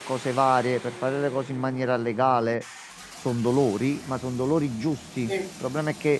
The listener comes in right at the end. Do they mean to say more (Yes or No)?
No